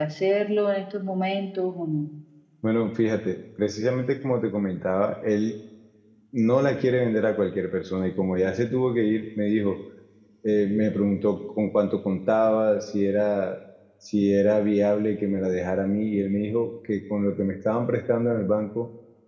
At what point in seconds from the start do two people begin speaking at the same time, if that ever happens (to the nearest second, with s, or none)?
none